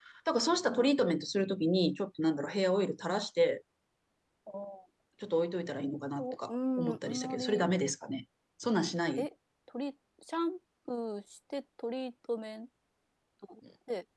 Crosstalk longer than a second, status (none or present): present